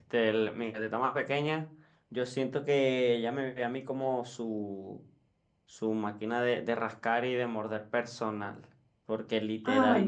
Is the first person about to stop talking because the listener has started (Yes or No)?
No